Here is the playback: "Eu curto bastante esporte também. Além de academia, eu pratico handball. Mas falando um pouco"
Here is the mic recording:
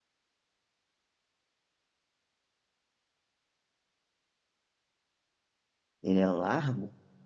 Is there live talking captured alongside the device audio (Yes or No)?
Yes